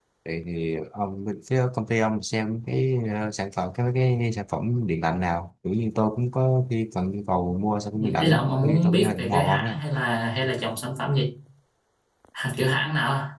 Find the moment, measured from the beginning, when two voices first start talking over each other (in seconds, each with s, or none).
7.9 s